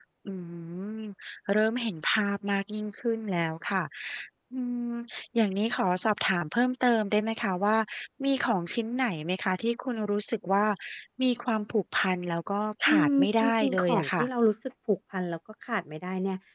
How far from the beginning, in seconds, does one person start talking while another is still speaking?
13 s

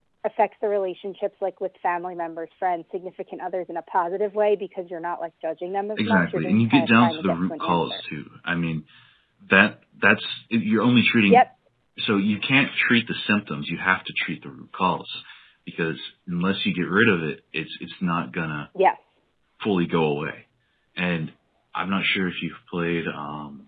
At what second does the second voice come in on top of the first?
6 s

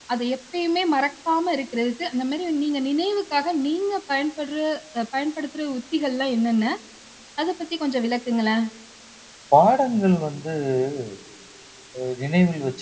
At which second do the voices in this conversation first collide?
none

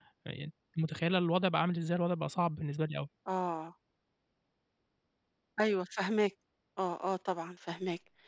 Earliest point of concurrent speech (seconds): none

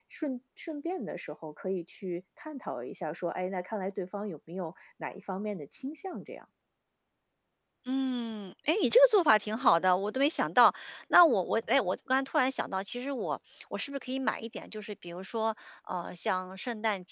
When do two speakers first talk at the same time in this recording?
none

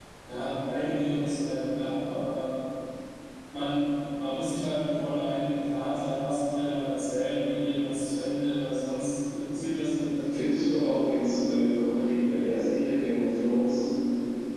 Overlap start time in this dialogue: 10 s

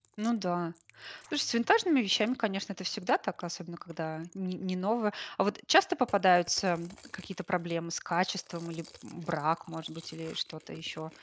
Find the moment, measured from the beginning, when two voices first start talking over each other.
none

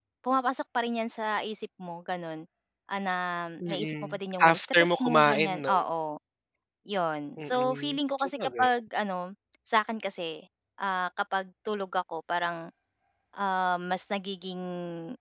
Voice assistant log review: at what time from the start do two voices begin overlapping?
4 s

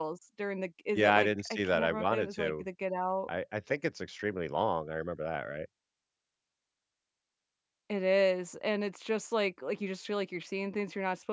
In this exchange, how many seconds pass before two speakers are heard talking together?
1 s

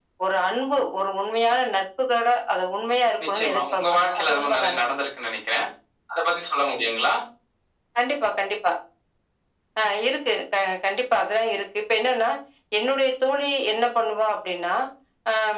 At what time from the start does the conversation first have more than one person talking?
3 s

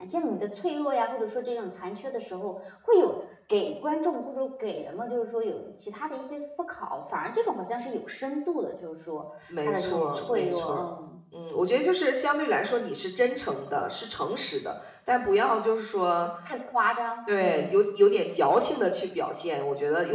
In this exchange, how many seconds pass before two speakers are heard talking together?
10 s

